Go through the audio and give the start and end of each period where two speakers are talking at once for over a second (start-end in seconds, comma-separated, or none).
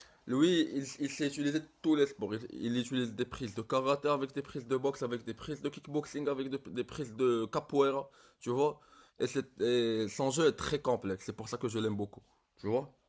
none